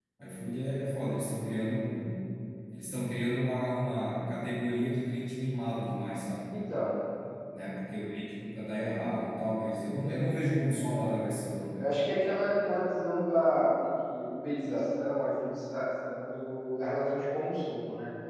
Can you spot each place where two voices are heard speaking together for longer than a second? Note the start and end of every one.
none

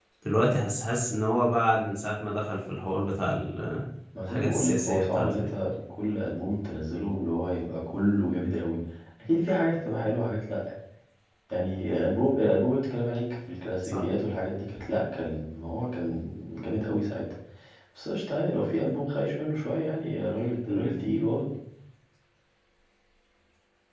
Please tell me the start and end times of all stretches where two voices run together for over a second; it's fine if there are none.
4.3-5.5

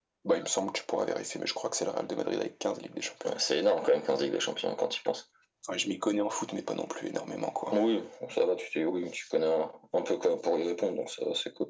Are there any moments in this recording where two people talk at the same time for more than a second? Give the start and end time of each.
none

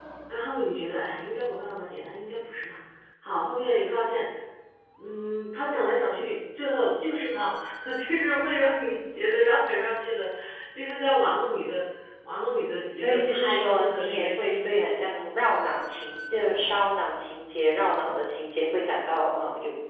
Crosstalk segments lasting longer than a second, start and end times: 12.9-14.9

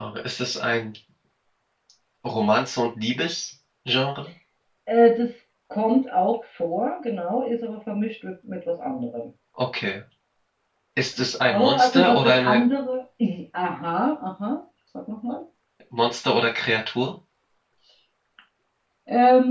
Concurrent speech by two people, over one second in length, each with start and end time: 11.4-12.7

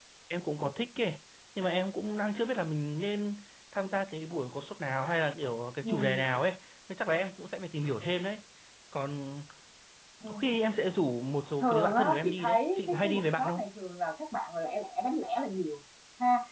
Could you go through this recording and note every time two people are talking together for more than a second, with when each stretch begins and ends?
11.6-13.6

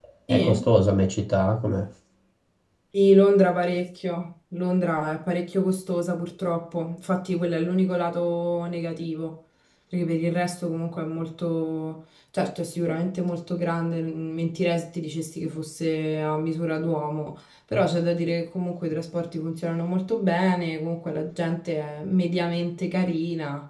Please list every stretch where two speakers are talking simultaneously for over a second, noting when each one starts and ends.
none

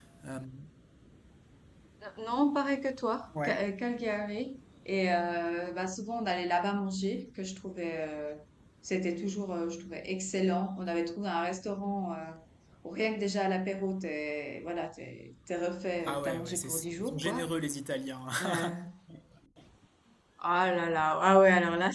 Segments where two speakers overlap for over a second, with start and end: 16.0-17.5

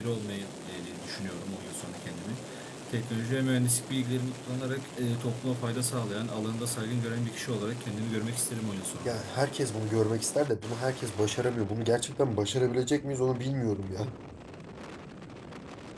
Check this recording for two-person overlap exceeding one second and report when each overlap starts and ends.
none

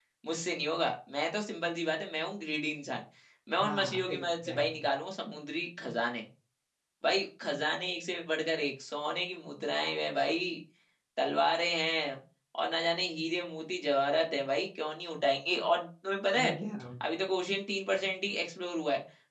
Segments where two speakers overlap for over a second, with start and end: 3.6-4.8

